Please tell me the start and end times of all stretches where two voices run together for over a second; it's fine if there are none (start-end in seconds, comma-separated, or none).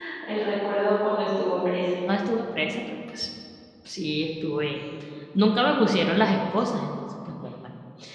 none